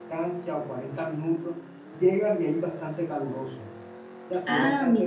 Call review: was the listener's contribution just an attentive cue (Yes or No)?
Yes